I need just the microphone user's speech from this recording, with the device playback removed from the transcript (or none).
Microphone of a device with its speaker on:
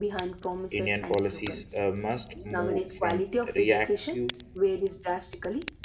Indian policies uh, must move from reactive